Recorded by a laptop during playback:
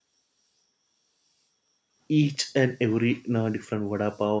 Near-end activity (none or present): present